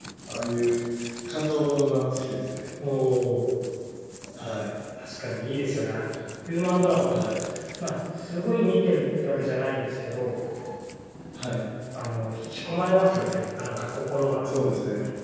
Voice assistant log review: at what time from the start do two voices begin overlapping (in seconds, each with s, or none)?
none